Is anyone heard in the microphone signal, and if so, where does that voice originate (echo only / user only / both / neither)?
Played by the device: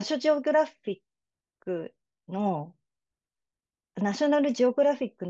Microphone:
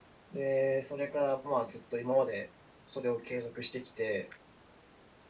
user only